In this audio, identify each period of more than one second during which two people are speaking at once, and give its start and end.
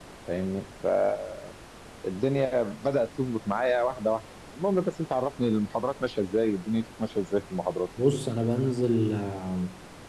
none

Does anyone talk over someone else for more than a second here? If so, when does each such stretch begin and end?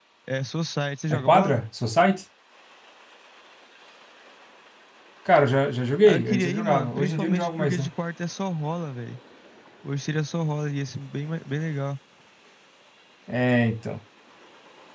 6.0-7.9

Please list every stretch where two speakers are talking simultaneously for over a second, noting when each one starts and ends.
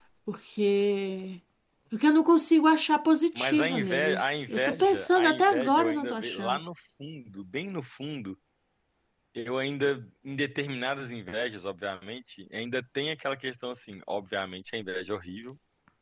3.4-6.6

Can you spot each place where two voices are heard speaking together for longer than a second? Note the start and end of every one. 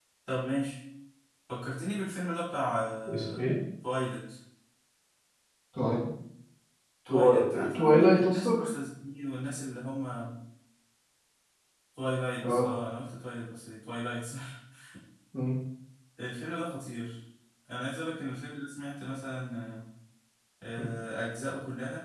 7.1-8.7

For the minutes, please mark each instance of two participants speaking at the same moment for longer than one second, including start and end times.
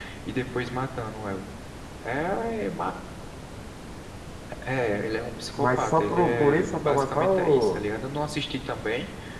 5.6-7.8

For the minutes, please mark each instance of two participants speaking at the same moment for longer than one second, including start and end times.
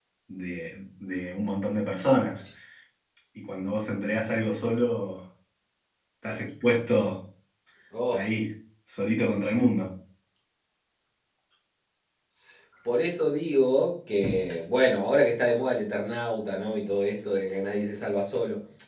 none

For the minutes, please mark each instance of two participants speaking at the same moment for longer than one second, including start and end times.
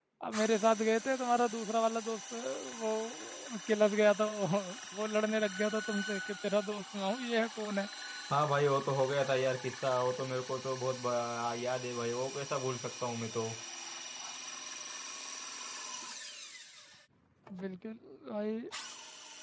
none

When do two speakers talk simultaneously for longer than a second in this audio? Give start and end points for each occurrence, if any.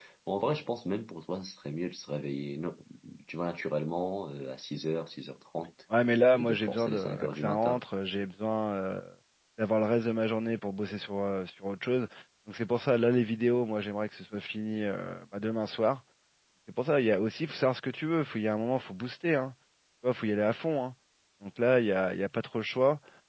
6.4-7.8

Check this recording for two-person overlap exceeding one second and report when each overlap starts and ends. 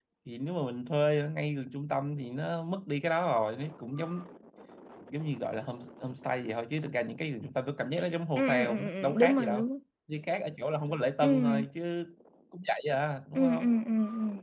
8.4-9.6

